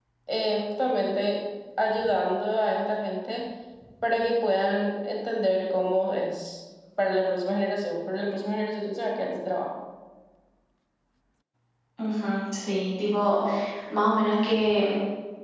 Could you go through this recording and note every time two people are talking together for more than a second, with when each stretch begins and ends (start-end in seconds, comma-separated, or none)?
none